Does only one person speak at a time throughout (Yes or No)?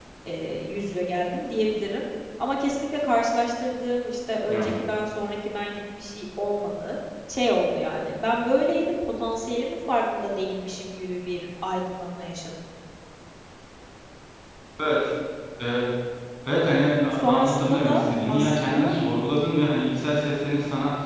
No